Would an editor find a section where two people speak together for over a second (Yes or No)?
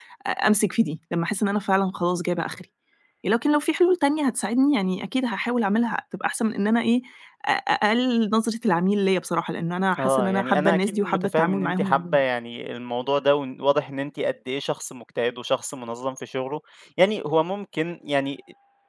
Yes